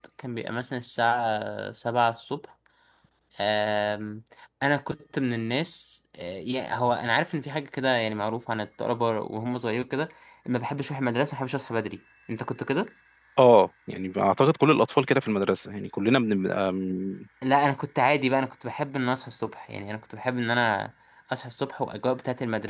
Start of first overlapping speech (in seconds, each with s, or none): none